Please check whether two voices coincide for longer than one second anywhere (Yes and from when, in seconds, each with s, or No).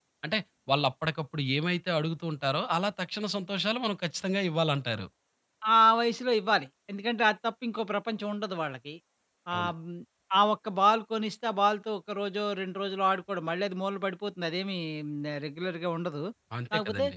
No